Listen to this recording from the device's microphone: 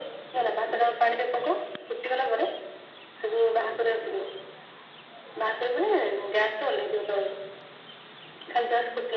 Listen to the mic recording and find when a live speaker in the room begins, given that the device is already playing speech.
none

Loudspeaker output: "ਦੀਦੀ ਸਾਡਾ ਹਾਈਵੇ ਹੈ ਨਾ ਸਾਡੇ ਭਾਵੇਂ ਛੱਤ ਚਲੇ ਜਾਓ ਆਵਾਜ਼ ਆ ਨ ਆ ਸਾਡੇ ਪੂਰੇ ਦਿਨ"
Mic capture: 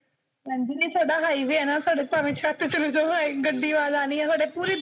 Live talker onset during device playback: none

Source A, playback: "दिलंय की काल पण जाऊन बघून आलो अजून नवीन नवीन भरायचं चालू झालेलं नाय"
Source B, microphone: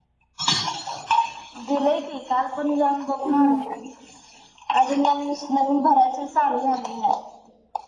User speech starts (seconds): 3.2 s

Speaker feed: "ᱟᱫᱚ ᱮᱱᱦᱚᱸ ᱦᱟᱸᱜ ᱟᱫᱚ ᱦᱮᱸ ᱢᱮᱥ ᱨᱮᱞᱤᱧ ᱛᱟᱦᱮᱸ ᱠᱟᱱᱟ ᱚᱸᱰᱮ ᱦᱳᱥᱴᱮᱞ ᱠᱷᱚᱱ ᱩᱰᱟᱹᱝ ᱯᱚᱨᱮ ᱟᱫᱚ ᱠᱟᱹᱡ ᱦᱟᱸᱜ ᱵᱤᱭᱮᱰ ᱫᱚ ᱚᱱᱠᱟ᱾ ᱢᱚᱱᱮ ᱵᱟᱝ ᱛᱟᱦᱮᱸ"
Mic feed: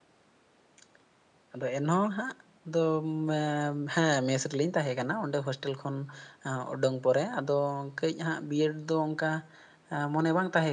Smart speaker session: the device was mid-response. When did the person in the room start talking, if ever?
none

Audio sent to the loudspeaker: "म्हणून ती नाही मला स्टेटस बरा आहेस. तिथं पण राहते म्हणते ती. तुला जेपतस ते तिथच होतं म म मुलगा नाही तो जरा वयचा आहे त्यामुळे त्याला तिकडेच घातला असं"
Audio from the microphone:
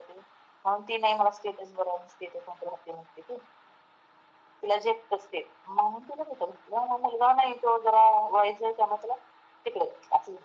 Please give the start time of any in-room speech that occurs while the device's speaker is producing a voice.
none

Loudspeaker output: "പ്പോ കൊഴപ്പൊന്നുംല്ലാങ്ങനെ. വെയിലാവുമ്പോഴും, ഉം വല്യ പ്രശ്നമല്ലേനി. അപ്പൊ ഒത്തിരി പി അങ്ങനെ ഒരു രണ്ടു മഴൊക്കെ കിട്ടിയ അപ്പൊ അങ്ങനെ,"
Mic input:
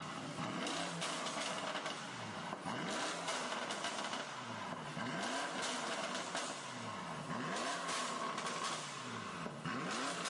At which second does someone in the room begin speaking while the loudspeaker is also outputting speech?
none

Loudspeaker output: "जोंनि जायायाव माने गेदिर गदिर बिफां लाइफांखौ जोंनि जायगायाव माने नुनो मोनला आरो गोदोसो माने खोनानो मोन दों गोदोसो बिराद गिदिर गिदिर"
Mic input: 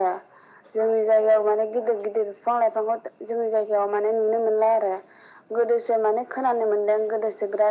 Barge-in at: none

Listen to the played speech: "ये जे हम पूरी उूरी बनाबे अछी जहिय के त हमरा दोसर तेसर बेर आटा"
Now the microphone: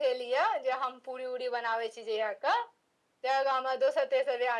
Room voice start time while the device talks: none

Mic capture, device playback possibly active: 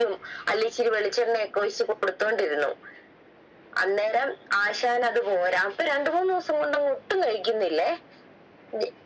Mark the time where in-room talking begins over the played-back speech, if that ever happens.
none

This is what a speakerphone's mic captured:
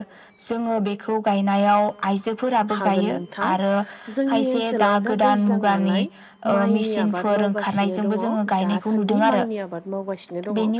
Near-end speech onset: 2.8 s

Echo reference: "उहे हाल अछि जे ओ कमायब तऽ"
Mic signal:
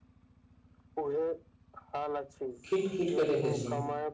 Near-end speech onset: 2.6 s

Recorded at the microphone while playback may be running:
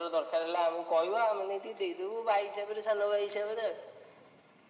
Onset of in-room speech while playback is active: none

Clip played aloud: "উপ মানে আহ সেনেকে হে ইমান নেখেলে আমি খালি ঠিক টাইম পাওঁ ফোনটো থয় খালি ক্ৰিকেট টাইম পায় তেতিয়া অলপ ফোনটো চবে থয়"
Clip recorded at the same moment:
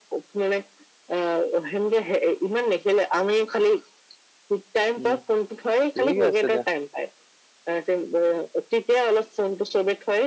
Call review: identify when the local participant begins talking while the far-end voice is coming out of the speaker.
5.0 s

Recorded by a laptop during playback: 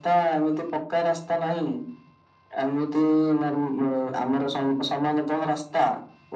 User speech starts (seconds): none

